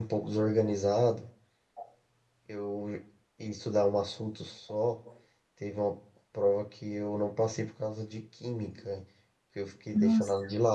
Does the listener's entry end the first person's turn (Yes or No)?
No